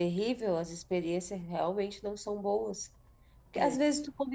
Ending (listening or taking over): listening